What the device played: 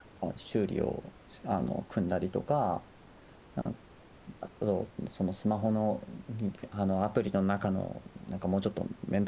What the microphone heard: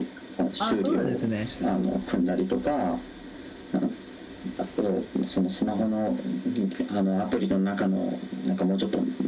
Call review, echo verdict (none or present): present